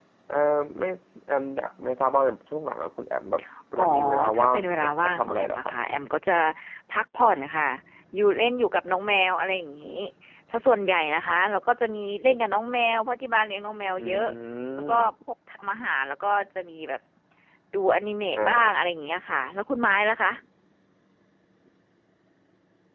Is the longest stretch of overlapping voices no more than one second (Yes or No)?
No